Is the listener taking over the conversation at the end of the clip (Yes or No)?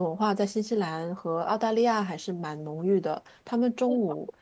No